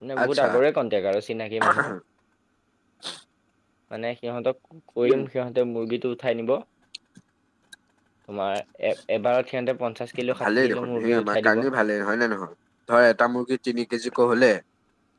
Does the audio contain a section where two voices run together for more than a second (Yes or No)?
Yes